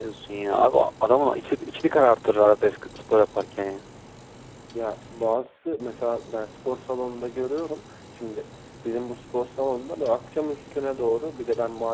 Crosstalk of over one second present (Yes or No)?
No